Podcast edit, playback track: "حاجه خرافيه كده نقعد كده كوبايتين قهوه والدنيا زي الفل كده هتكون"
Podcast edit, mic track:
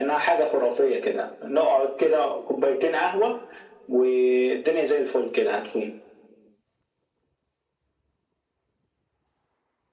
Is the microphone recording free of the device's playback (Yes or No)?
No